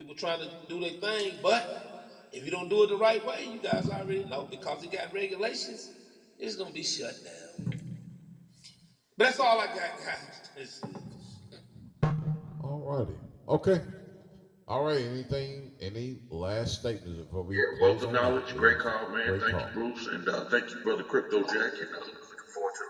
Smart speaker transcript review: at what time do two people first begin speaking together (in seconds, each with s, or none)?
17.5 s